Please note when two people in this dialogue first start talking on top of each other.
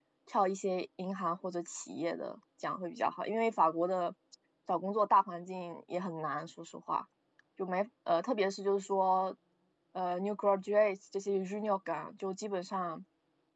none

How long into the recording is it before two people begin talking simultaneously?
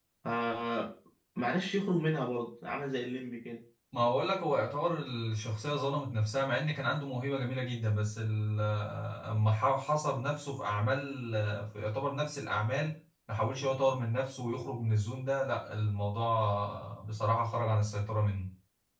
none

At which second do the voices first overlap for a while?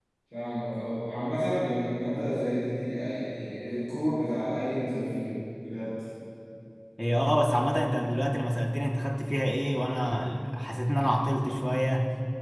none

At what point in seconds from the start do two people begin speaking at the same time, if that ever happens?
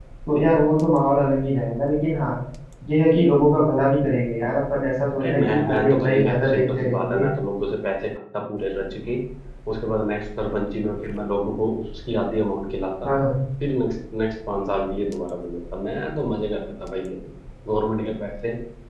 5.2 s

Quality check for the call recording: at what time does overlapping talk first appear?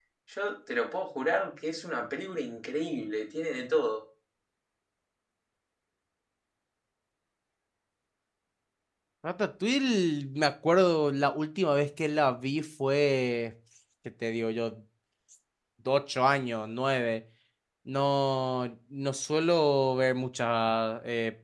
none

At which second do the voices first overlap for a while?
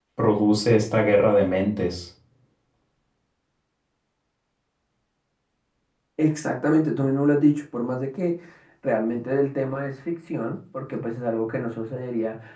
none

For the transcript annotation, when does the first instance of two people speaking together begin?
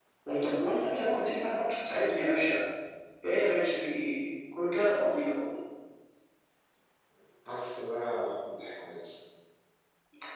none

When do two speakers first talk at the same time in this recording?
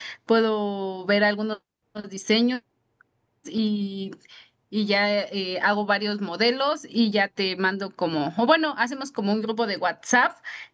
none

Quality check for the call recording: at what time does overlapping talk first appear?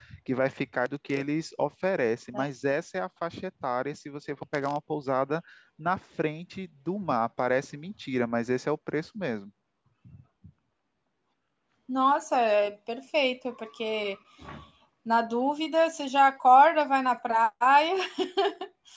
none

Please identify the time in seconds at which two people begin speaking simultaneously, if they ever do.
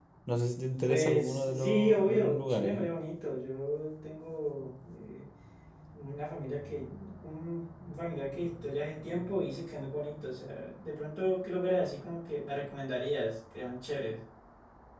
0.8 s

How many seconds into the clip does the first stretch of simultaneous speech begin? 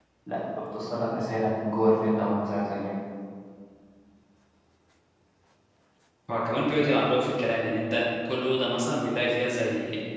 none

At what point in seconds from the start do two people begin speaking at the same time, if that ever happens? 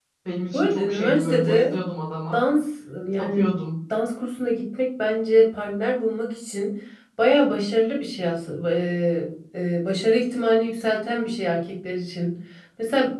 0.5 s

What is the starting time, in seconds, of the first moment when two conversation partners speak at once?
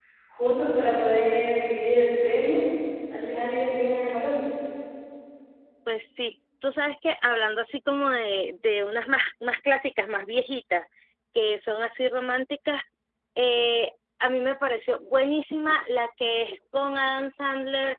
none

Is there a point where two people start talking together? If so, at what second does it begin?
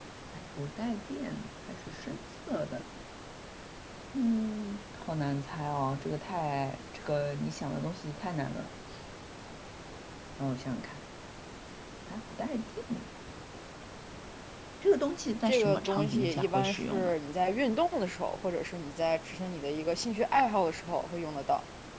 15.4 s

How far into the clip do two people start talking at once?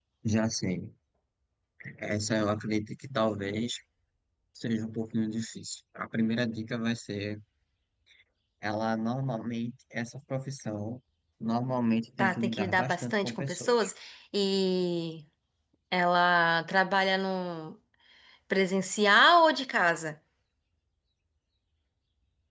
12.2 s

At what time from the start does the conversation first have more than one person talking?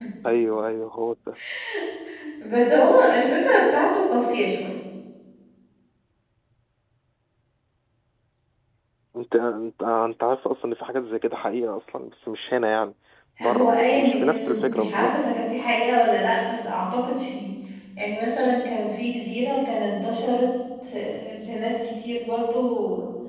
13.4 s

